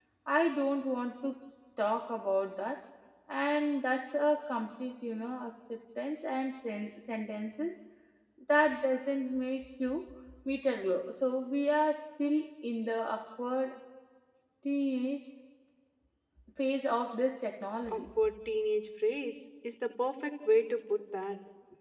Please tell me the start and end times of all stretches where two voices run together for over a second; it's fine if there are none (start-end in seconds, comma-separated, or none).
none